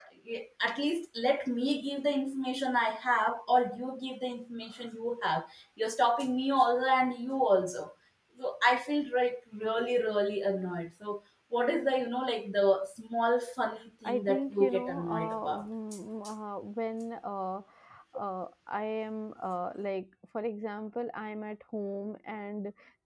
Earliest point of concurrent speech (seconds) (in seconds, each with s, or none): 14.0 s